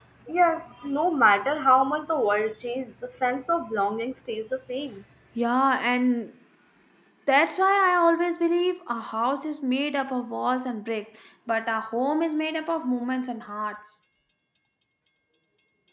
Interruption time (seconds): none

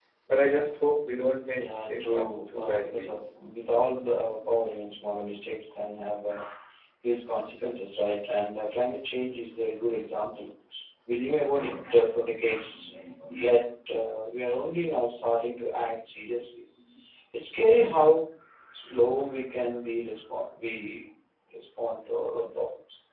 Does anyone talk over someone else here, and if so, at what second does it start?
1.6 s

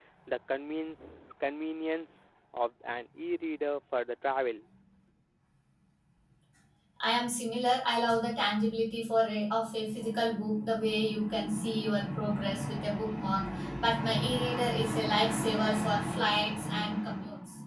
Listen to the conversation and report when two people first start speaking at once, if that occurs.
none

